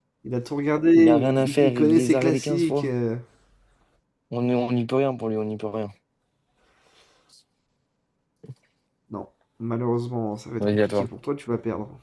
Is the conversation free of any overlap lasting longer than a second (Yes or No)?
No